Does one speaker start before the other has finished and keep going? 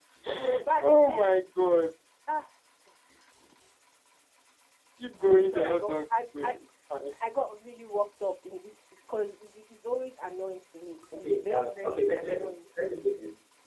Yes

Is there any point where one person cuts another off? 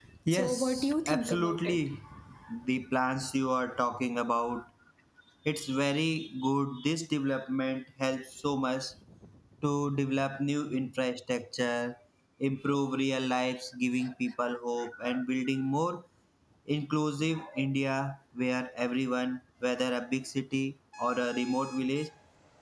Yes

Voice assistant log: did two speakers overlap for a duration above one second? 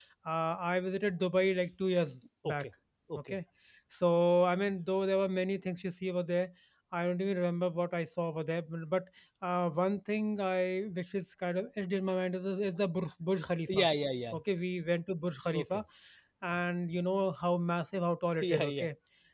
No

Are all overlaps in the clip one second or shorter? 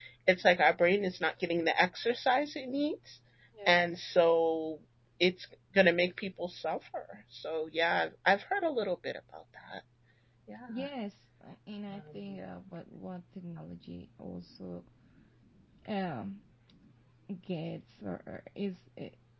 Yes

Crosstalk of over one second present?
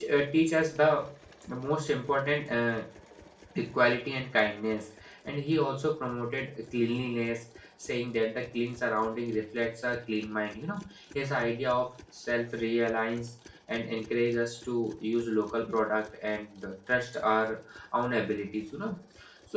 No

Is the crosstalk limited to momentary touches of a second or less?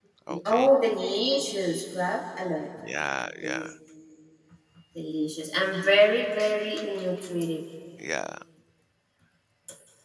Yes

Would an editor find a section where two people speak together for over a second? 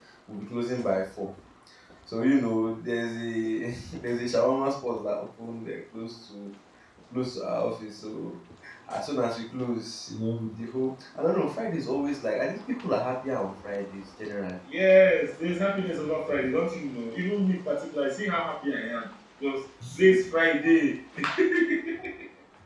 No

